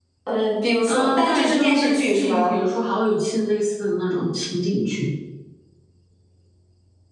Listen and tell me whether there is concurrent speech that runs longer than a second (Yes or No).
Yes